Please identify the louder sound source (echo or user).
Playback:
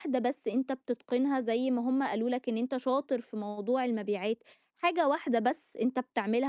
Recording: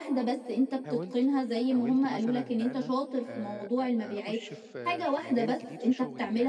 echo